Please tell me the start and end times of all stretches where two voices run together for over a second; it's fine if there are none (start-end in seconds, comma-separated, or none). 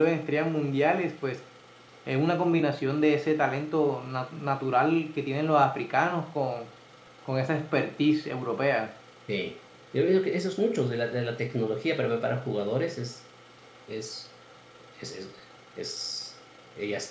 none